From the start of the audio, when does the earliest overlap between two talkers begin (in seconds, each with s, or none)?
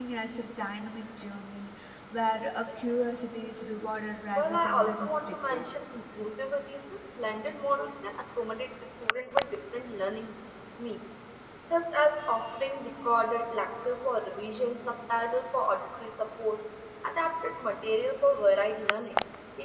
4.4 s